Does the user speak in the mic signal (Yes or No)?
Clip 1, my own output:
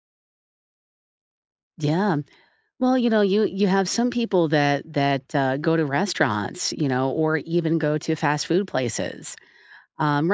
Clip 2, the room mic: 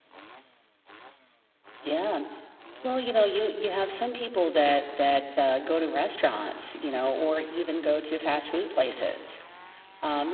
No